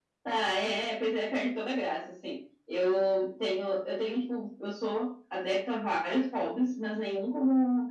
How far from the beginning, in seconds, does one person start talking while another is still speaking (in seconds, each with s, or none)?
none